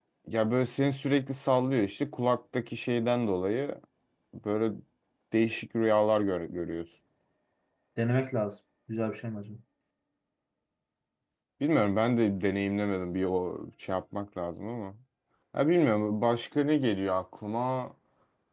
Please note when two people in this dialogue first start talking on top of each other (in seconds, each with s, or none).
none